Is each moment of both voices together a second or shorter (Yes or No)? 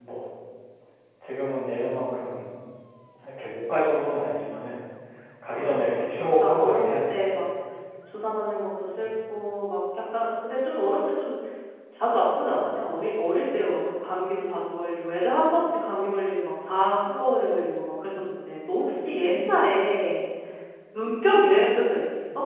No